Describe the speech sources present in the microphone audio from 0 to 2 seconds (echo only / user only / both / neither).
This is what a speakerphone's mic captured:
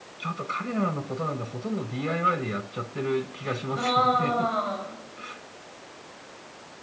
echo only